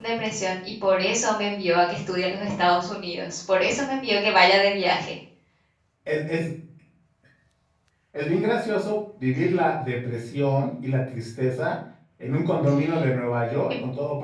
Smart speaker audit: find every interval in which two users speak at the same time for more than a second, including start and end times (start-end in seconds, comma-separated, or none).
none